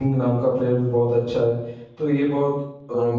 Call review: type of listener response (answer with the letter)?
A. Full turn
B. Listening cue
B